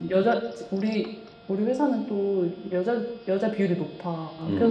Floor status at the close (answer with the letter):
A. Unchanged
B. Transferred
A